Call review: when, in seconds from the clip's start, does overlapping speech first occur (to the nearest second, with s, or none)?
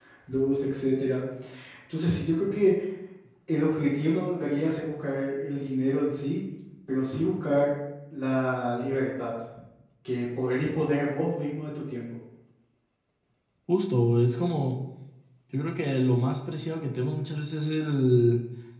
none